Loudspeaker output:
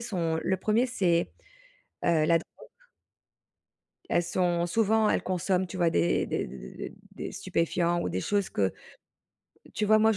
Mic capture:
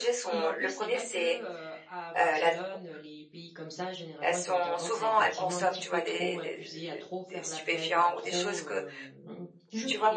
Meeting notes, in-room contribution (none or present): present